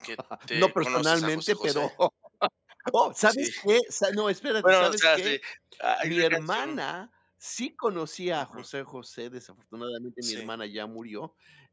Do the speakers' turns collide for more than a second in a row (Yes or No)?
Yes